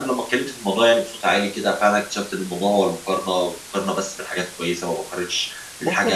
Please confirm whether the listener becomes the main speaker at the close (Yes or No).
Yes